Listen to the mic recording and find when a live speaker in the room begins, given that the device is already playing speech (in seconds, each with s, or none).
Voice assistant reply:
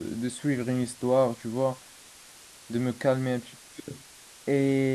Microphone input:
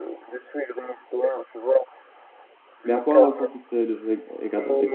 2.8 s